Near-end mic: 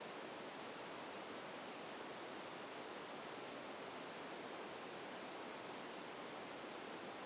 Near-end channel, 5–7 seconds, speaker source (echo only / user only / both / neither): neither